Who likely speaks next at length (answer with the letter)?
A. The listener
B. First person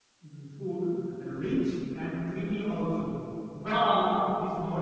B